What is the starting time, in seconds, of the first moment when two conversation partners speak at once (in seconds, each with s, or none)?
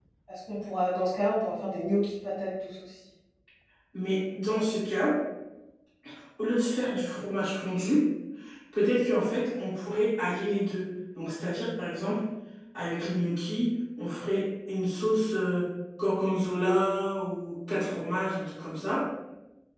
none